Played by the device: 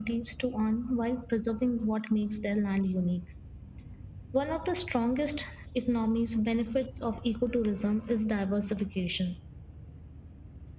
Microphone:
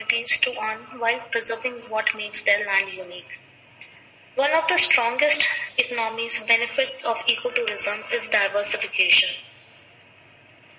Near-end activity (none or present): none